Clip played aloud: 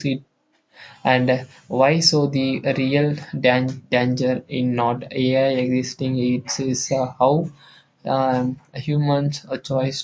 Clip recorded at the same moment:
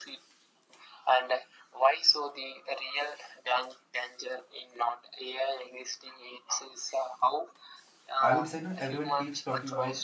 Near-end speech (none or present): present